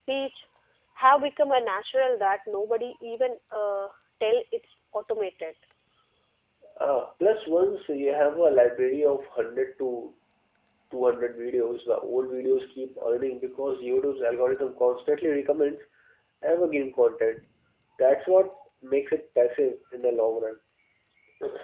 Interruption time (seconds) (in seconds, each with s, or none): none